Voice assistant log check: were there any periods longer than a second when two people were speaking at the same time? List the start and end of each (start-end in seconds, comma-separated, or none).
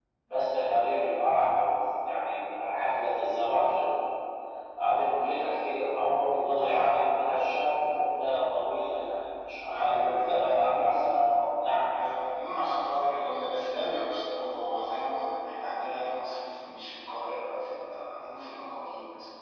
9.7-11.0